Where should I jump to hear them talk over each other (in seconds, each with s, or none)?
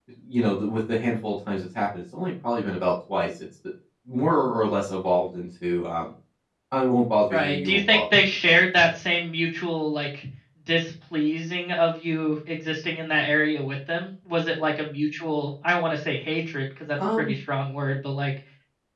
7.3 s